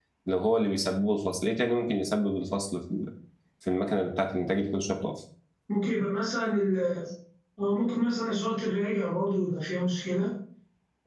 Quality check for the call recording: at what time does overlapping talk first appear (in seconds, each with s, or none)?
none